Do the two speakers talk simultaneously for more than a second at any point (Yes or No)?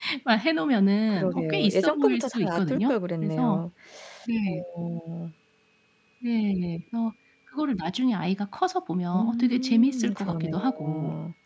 Yes